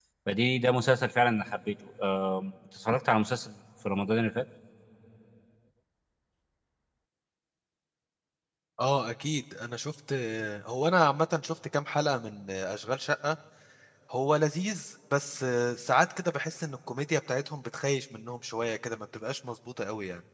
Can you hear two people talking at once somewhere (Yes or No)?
No